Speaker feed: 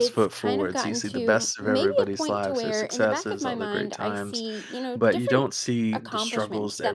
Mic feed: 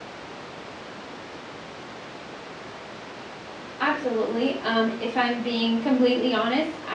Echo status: none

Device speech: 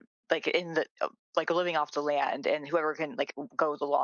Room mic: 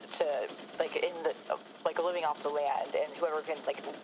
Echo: present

